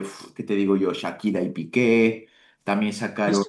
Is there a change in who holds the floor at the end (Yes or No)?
No